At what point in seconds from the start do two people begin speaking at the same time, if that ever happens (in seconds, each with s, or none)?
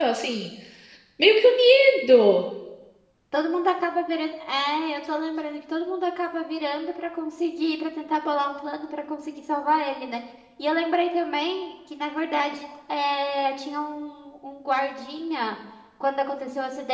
none